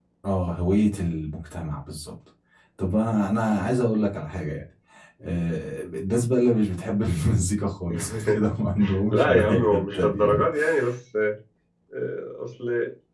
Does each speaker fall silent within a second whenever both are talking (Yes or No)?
No